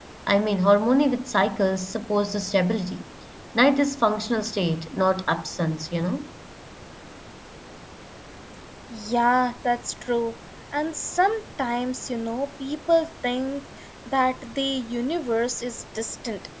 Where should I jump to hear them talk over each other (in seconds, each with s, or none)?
none